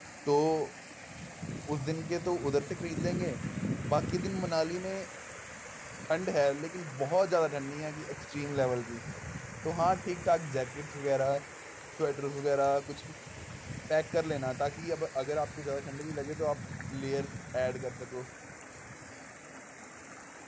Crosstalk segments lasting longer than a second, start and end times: none

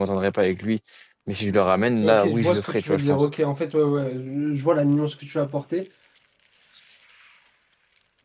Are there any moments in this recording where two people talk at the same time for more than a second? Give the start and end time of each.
2.0-3.3

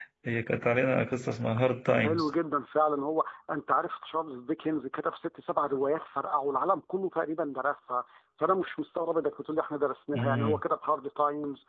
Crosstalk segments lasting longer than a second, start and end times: none

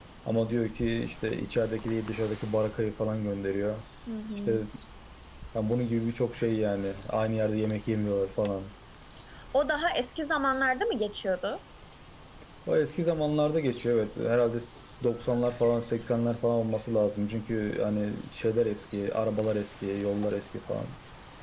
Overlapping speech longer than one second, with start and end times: none

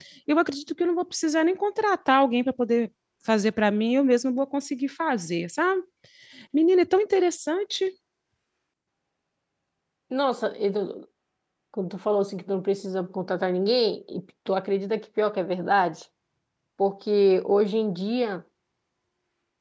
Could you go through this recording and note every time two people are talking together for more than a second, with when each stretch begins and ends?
none

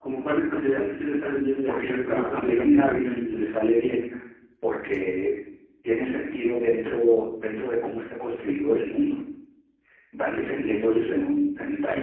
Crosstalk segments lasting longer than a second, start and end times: 1.7-3.5

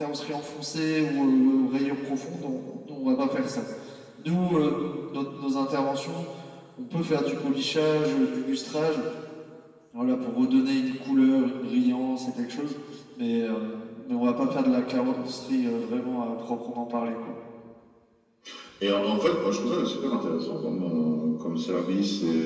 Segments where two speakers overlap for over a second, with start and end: none

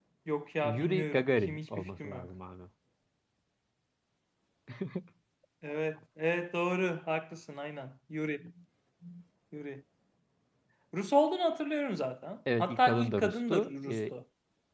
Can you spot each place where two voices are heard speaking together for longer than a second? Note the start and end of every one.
0.6-2.3, 12.6-14.1

